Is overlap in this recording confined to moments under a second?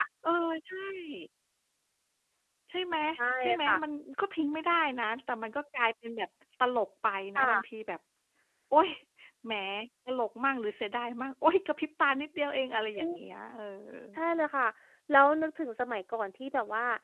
Yes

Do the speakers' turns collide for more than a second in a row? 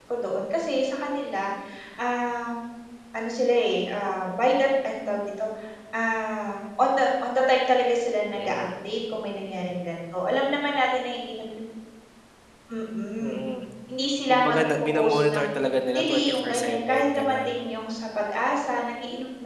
Yes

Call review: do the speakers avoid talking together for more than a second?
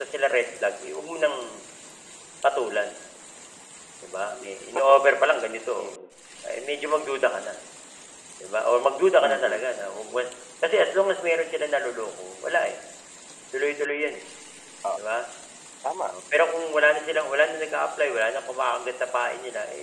Yes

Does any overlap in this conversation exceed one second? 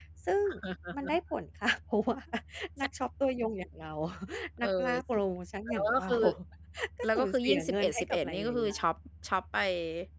Yes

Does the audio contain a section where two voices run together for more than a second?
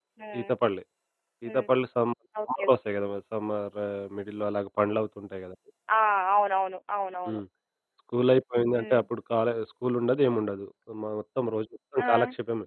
No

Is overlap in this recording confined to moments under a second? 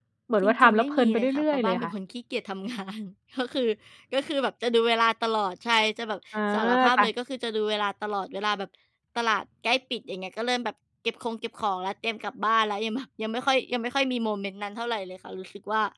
No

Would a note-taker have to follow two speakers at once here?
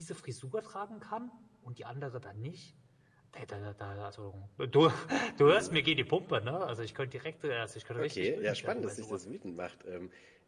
Yes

